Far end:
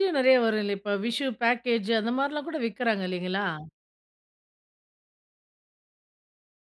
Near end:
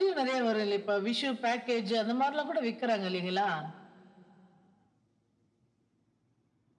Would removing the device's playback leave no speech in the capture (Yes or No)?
Yes